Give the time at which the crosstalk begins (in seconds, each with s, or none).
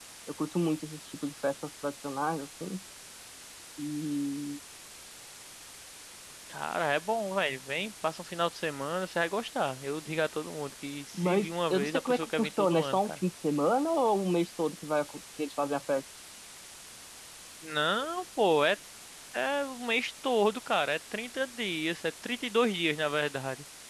11.1 s